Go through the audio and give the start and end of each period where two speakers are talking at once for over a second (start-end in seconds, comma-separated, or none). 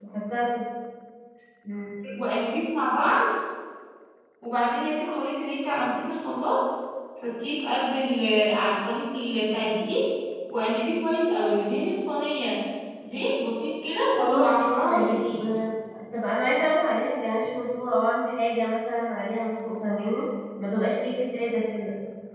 14.2-15.4